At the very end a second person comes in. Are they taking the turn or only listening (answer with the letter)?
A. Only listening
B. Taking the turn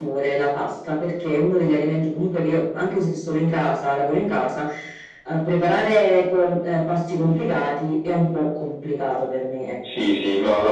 B